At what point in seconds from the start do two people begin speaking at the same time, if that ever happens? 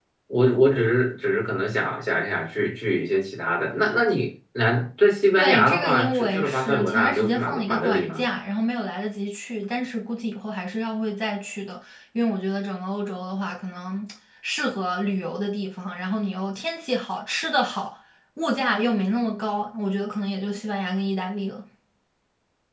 5.3 s

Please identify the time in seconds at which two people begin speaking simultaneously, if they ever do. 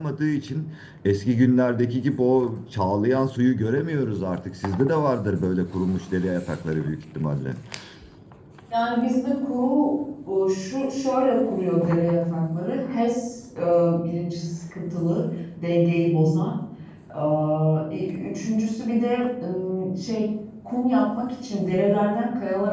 none

